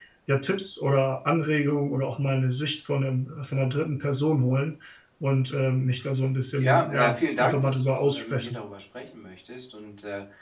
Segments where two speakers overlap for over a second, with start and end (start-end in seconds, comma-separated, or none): 6.6-8.6